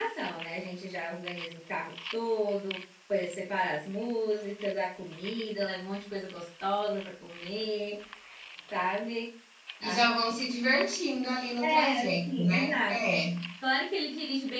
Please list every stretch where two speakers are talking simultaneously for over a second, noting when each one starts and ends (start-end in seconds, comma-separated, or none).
11.6-13.0